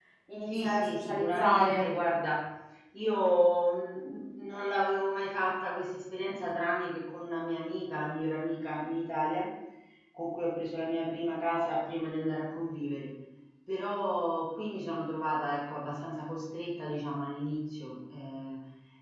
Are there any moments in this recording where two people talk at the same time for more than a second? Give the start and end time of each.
0.6-1.9

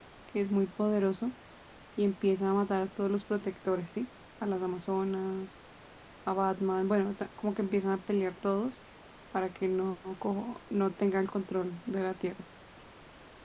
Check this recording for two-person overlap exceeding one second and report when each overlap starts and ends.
none

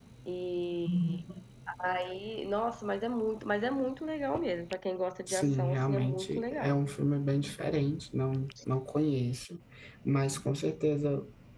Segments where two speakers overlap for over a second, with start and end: 5.3-6.8

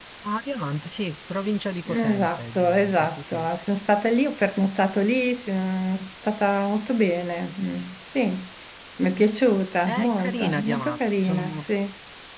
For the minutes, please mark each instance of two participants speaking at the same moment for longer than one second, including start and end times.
1.9-3.5, 9.9-11.7

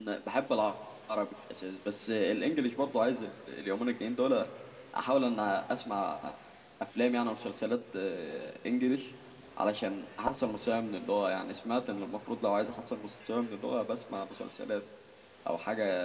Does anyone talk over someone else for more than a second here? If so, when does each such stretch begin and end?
none

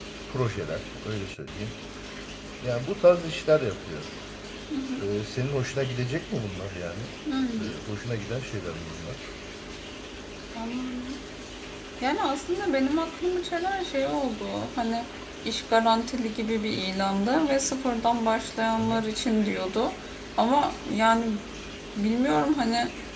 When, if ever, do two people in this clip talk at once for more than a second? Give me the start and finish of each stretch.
none

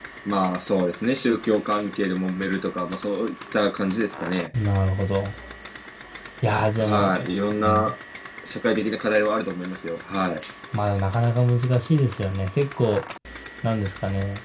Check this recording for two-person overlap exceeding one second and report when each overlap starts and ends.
none

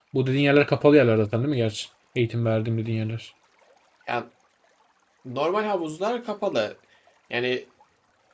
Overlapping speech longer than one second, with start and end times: none

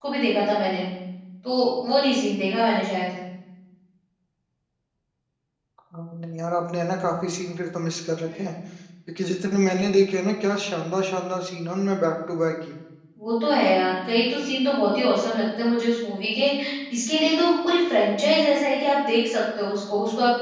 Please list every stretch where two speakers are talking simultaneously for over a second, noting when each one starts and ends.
none

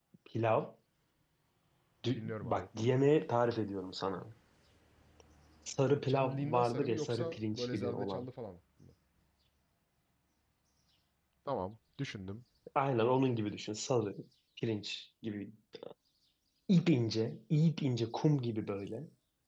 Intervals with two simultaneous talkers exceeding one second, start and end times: 6.1-8.3

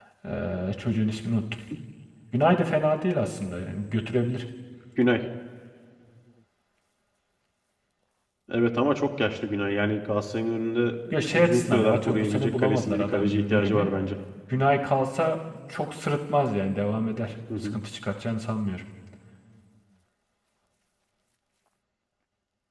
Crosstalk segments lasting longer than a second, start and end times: 11.1-13.9

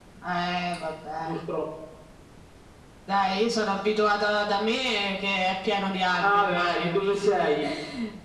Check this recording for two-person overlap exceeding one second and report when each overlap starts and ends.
6.2-7.5

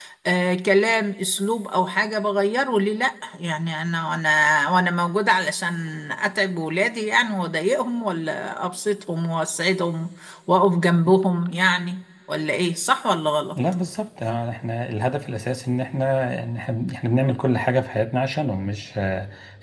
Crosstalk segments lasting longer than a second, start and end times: none

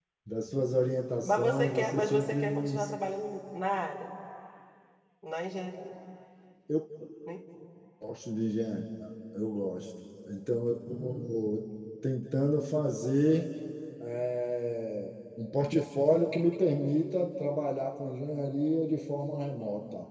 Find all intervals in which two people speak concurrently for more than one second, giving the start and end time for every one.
1.2-2.9

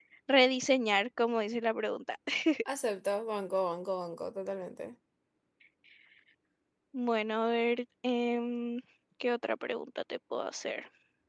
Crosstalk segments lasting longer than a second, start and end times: none

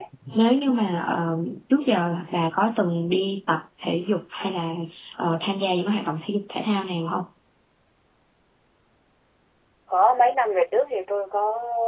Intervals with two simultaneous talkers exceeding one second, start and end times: none

